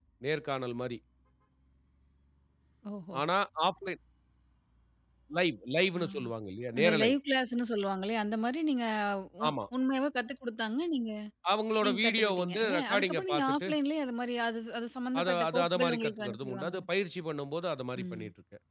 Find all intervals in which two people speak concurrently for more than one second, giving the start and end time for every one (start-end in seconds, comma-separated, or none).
11.8-13.7, 15.2-16.7